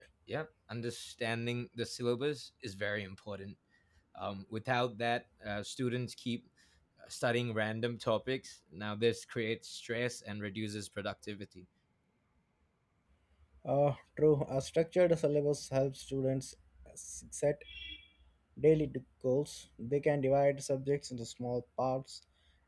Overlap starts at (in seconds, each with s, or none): none